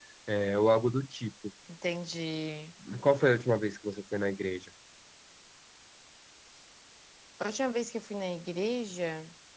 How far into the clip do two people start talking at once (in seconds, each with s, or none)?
none